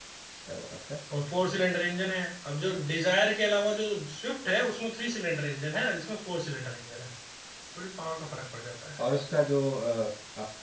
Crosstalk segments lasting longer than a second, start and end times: none

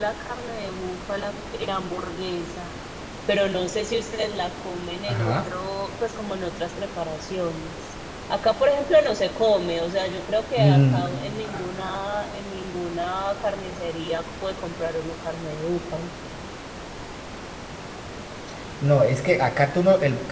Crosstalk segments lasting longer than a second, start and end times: none

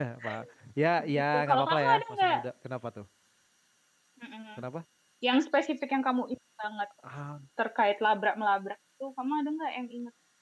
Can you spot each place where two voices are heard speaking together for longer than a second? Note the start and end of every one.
1.1-2.4

